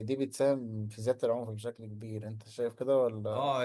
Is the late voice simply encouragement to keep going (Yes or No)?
No